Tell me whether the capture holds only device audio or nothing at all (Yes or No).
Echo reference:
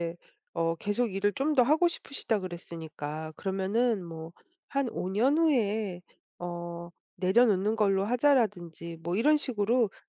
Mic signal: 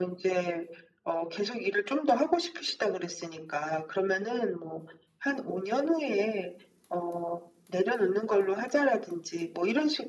Yes